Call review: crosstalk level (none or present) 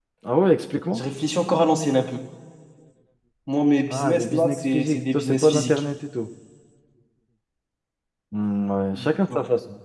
present